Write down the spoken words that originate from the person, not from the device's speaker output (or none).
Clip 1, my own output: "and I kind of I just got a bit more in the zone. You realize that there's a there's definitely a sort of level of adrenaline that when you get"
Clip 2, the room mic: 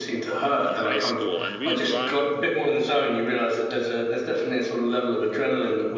in high school and we would run